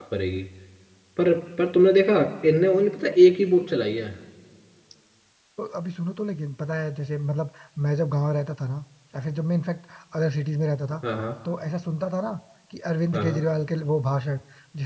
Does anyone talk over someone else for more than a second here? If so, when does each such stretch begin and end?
none

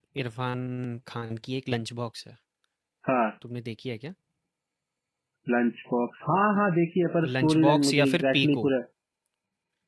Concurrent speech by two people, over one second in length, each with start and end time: 7.2-8.7

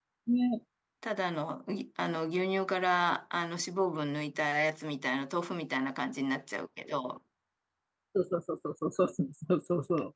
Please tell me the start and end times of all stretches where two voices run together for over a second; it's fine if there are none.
none

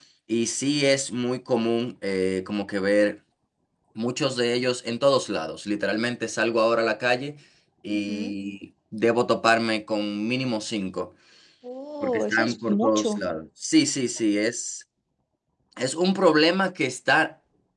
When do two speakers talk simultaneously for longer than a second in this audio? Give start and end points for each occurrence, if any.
12.0-13.2

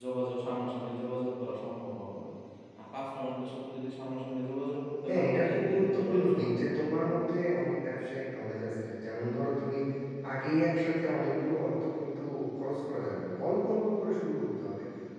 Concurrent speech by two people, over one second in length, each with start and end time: 5.1-6.9

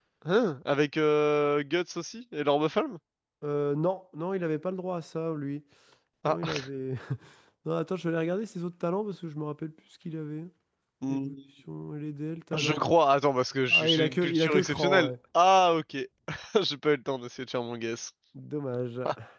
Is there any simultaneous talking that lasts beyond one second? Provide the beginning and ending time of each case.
13.7-15.1

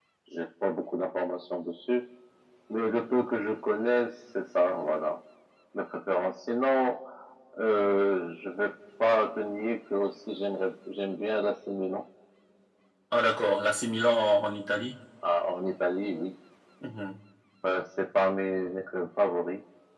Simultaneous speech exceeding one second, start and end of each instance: none

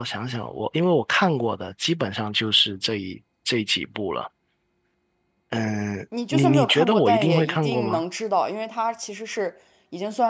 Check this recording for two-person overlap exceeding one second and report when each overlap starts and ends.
6.3-8.0

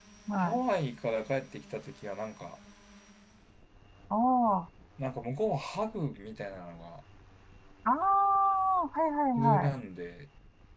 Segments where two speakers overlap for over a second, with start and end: none

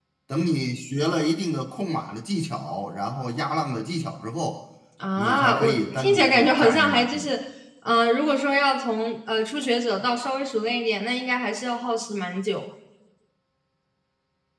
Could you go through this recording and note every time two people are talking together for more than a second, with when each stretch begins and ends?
5.2-7.3

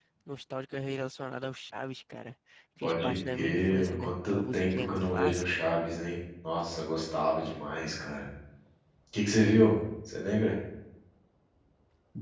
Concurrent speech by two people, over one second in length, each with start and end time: 2.8-5.4

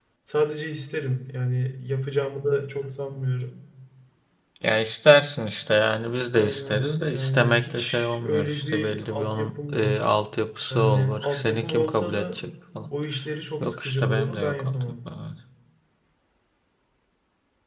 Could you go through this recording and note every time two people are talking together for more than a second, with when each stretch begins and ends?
6.3-10.0, 10.7-12.4, 13.6-15.0

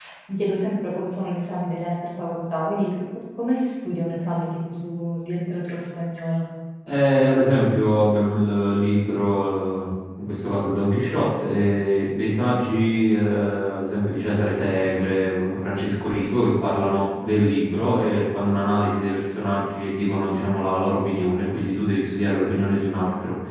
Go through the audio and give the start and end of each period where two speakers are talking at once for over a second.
none

